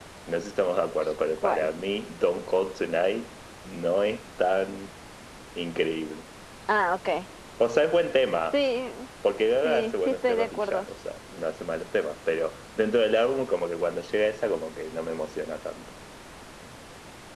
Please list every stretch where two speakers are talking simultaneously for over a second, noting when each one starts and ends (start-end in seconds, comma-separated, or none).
9.6-10.8